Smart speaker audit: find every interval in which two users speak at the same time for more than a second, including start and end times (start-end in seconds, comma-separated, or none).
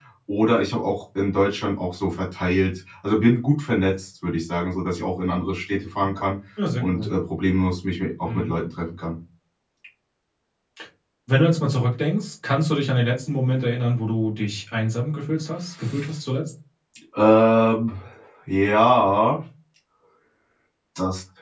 none